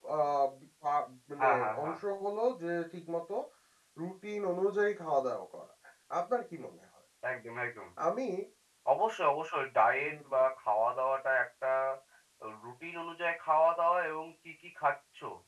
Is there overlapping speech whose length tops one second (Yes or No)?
No